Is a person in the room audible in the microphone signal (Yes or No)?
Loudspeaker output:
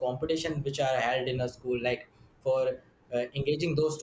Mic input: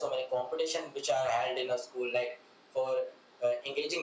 No